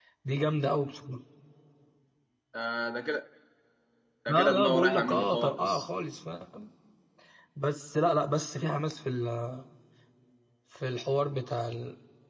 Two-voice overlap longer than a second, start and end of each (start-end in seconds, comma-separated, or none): 4.3-5.8